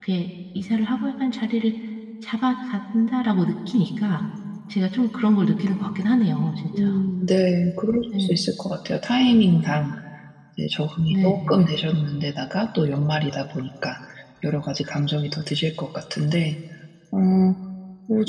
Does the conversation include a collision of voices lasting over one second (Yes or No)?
No